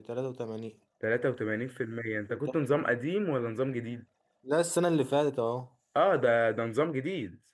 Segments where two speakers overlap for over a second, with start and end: none

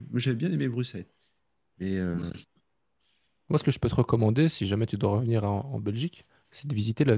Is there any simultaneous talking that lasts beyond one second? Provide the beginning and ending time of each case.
none

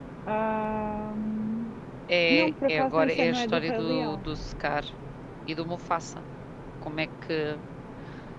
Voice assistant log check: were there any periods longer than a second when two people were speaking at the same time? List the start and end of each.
2.3-4.2

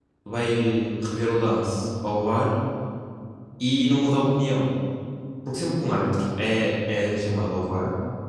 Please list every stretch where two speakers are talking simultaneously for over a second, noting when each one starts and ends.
none

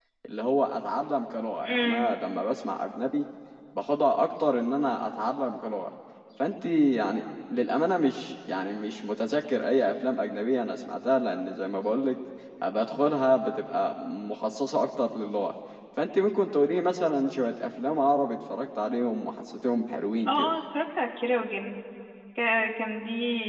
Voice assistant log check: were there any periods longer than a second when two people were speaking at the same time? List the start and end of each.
none

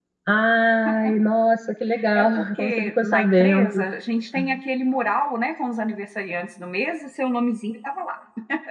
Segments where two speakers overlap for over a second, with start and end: 2.1-3.7

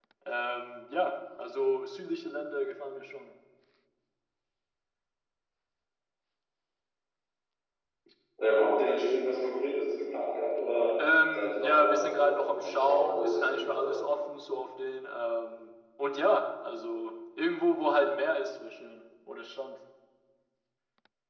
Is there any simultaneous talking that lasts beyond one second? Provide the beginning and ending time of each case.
11.4-13.9

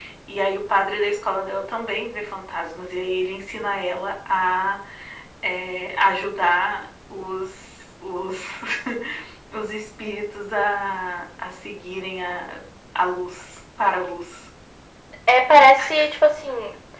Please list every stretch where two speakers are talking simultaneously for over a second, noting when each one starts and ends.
none

